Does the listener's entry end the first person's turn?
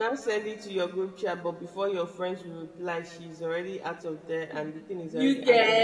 Yes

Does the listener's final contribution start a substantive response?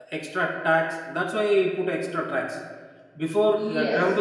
No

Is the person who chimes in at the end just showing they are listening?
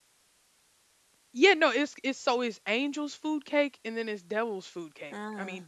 Yes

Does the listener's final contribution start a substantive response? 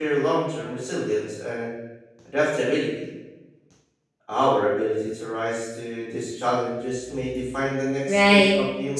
Yes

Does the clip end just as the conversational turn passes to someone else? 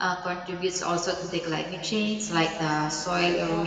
No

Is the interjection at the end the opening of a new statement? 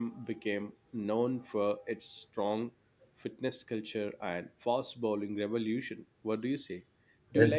No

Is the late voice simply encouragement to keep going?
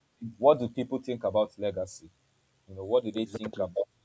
Yes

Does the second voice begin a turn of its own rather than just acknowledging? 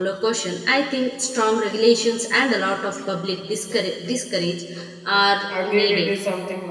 Yes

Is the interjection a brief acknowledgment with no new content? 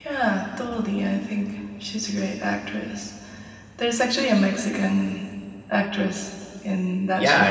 No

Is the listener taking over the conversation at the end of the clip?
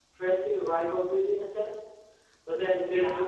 No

